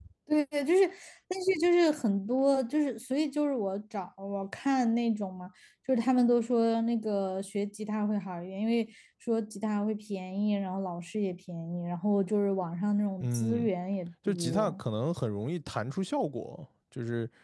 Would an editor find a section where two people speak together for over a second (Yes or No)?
No